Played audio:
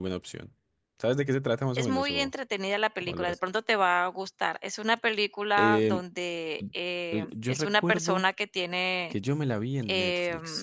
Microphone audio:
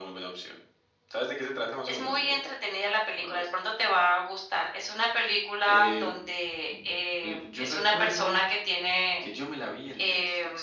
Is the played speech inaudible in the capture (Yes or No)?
No